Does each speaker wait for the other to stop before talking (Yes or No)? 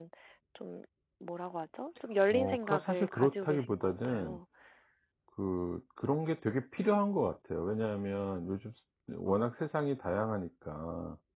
No